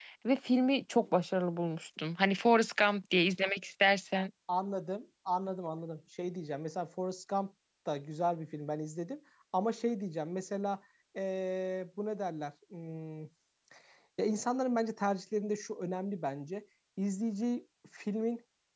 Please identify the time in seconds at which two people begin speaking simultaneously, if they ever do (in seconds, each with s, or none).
none